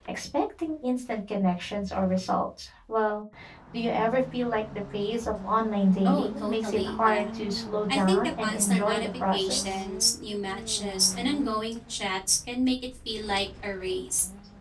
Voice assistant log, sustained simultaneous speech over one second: present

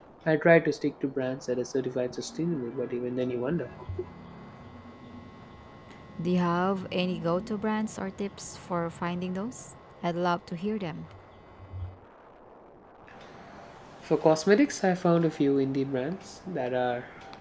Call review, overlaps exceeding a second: none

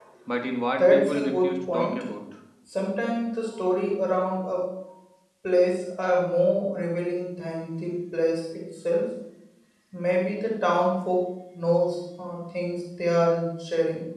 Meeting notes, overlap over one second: present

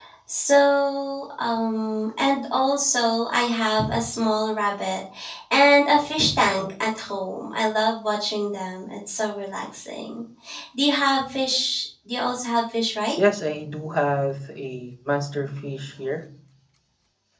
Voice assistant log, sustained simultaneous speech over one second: none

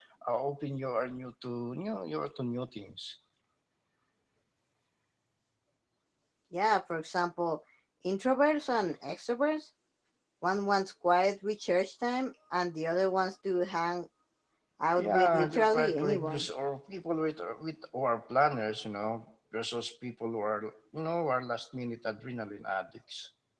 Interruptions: present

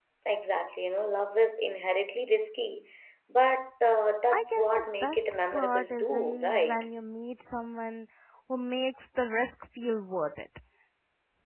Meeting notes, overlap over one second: present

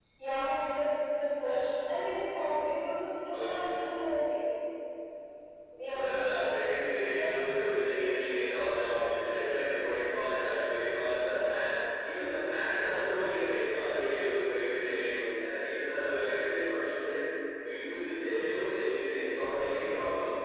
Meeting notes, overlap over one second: present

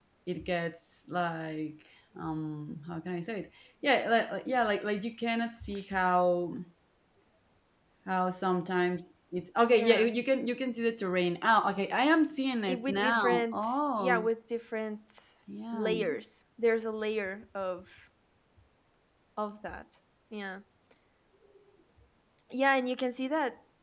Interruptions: present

